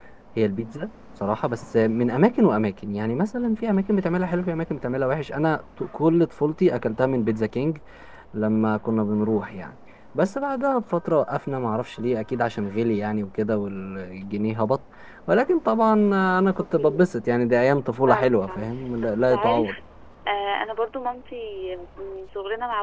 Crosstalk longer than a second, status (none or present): present